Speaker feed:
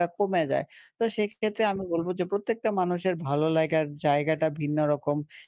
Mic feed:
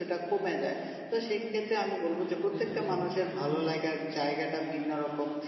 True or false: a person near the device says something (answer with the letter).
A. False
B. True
B